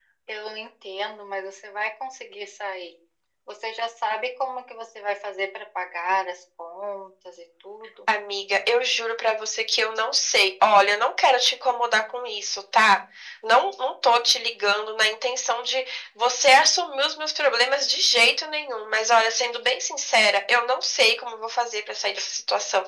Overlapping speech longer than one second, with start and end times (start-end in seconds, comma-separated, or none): none